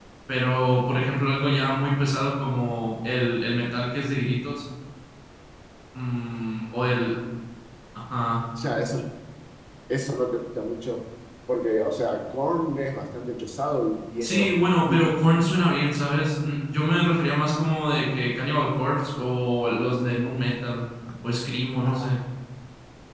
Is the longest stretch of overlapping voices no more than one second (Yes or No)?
No